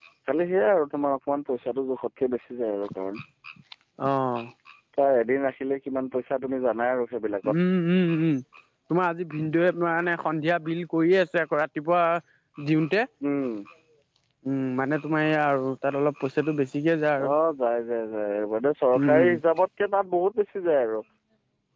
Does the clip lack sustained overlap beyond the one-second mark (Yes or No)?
Yes